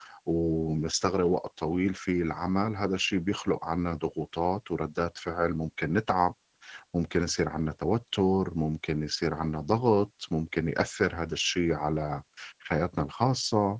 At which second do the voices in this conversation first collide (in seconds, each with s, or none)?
none